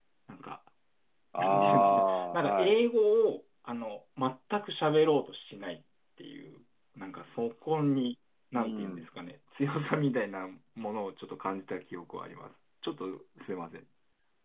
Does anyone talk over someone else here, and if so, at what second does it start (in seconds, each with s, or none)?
1.4 s